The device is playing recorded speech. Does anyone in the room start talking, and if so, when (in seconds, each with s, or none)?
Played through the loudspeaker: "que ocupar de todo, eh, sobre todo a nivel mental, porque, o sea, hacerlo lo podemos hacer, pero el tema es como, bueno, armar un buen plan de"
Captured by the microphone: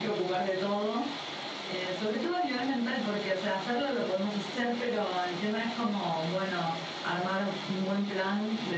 none